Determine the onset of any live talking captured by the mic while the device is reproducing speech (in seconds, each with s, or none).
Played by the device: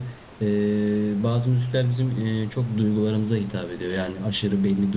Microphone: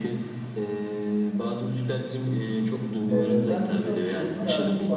3.1 s